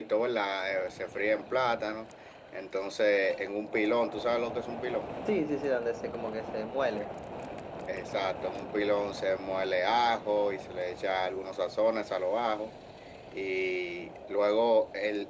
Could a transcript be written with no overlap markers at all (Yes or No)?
Yes